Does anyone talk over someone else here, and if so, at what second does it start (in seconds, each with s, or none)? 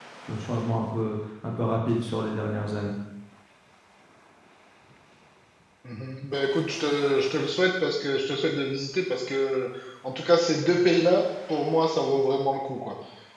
none